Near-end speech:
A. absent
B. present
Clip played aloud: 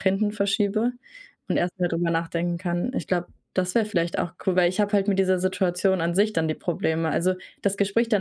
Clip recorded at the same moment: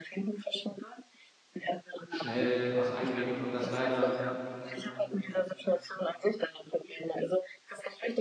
B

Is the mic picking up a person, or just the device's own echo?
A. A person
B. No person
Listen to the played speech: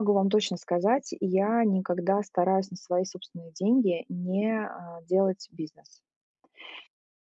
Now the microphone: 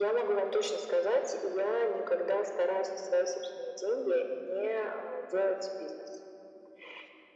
B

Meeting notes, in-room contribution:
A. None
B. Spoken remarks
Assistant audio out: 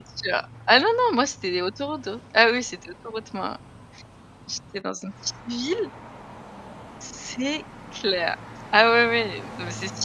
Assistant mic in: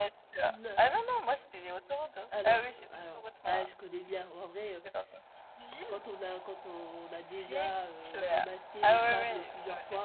B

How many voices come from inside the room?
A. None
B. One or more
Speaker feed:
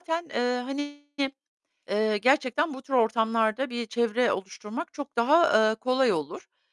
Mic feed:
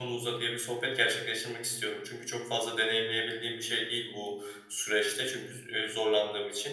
B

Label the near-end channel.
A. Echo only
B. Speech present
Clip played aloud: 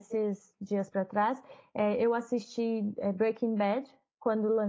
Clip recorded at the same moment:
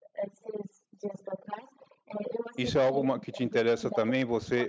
B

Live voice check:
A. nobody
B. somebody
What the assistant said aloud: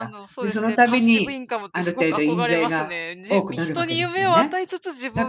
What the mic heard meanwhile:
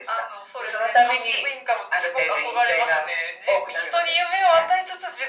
A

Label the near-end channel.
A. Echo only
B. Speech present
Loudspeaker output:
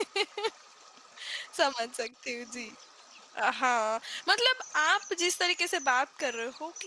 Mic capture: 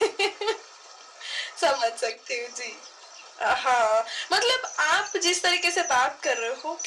A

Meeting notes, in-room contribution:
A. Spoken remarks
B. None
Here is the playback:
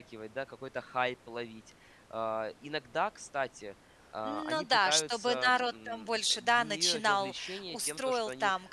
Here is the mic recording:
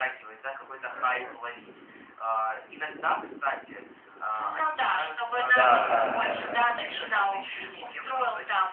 A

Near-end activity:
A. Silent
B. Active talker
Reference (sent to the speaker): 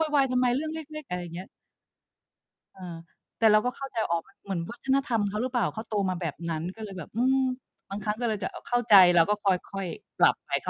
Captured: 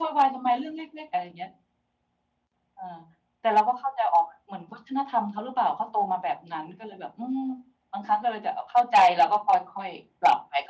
A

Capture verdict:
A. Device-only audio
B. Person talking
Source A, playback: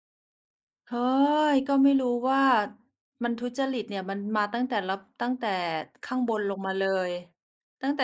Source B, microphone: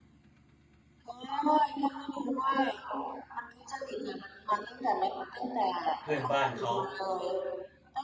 B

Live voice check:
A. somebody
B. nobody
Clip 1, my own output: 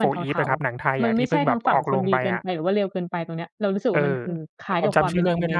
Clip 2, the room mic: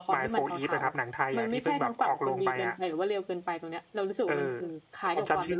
B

